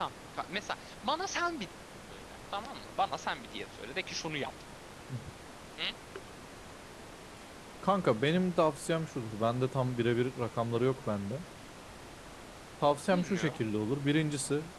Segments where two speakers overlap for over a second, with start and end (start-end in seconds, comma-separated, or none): none